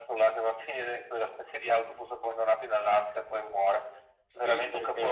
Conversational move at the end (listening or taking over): taking over